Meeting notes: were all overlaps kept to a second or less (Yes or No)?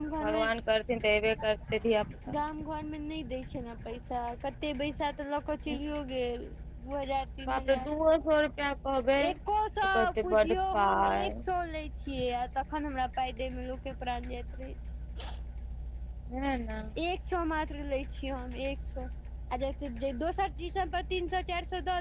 No